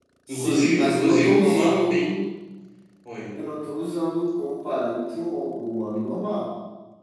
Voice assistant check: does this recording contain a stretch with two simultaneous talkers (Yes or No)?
Yes